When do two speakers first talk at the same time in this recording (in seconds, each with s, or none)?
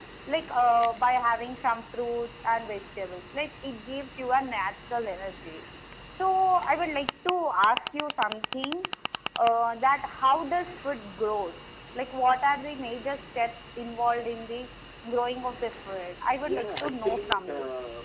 16.4 s